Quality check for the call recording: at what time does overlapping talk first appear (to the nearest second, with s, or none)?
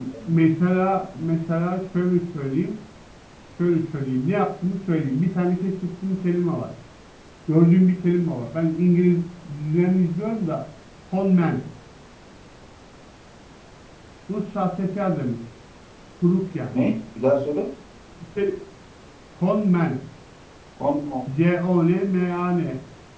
none